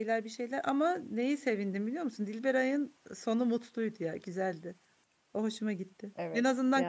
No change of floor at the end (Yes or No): Yes